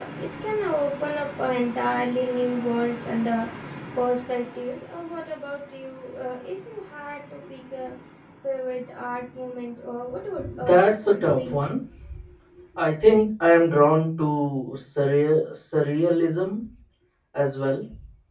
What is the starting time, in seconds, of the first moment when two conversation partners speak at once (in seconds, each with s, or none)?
10.4 s